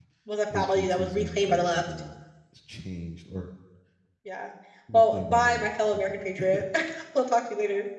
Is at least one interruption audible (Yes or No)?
Yes